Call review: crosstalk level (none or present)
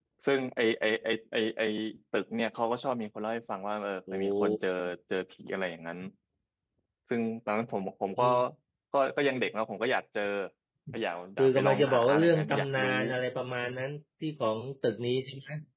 present